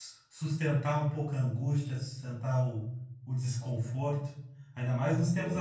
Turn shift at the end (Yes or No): No